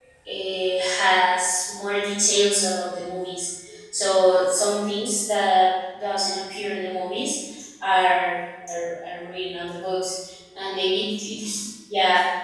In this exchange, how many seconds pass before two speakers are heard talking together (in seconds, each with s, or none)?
none